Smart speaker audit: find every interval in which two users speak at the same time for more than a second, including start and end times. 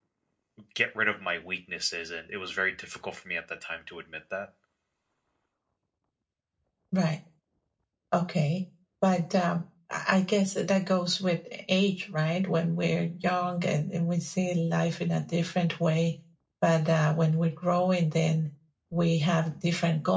none

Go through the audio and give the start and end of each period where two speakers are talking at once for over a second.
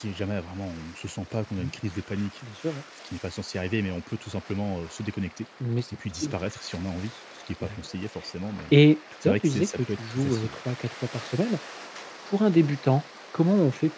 9.2-10.6

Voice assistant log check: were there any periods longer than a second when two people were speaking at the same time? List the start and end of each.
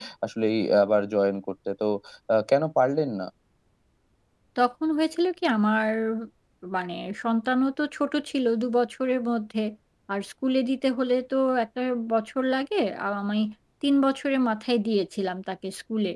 none

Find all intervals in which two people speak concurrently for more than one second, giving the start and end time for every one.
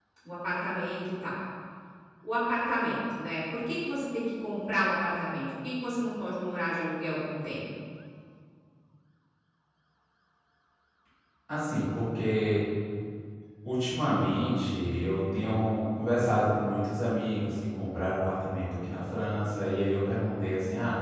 none

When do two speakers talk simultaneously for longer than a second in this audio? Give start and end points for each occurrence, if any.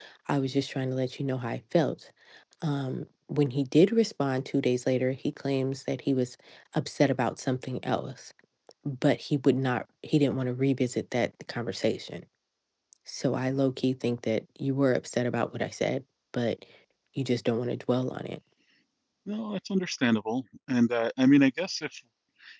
none

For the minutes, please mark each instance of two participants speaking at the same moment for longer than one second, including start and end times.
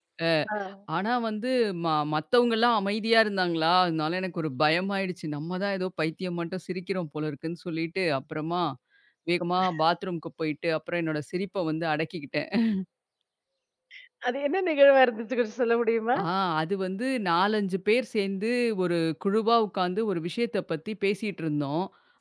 none

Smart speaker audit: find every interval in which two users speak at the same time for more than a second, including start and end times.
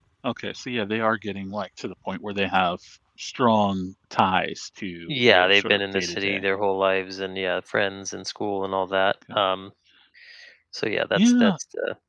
5.1-6.4

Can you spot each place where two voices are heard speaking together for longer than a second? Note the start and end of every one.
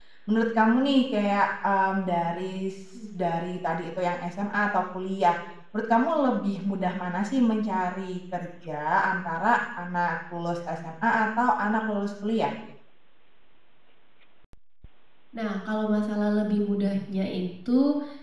none

